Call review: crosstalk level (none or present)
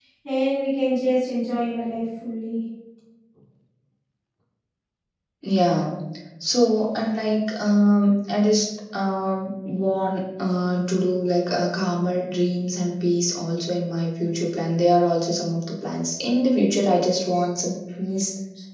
none